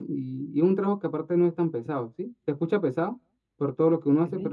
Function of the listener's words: listening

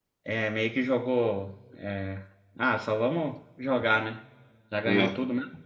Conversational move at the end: listening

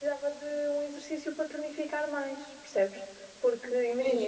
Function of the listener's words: listening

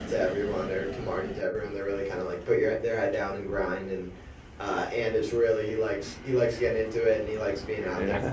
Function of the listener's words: listening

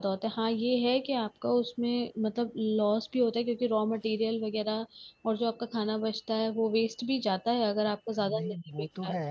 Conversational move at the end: taking over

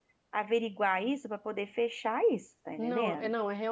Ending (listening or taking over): taking over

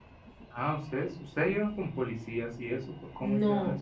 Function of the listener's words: taking over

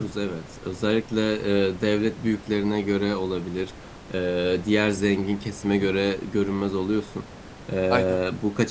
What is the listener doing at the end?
listening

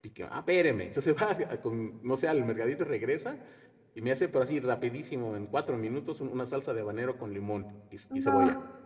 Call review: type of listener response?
listening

